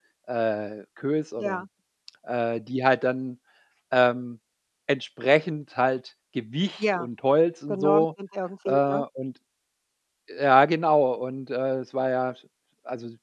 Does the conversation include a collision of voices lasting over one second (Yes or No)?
No